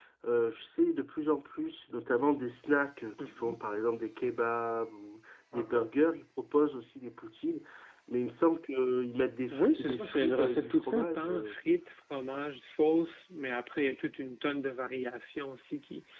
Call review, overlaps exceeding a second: present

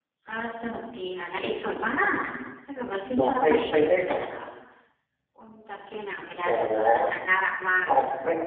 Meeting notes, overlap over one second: present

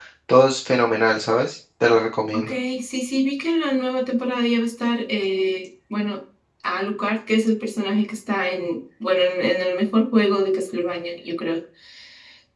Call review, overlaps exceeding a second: none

